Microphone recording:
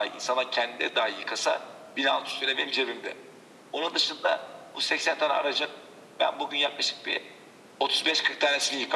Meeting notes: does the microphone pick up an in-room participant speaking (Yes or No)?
No